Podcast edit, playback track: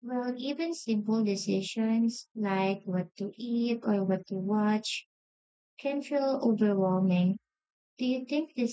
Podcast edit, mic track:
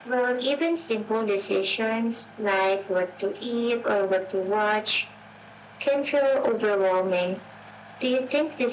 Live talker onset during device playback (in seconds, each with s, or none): none